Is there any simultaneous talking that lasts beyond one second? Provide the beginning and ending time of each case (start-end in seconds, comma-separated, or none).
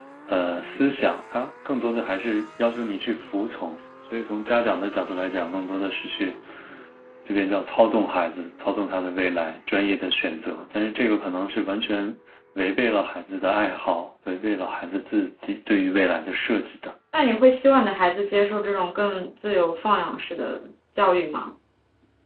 none